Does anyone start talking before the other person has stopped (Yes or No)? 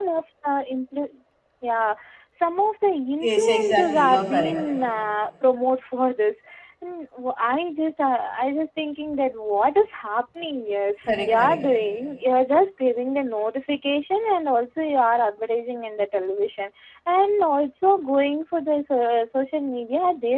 Yes